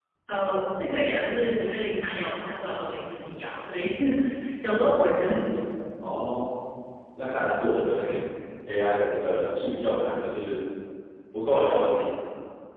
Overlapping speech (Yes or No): No